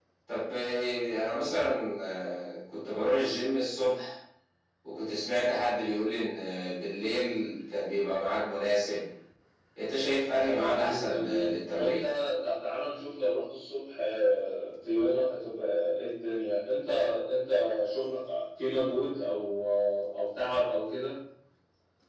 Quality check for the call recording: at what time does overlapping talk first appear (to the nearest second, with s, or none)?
10 s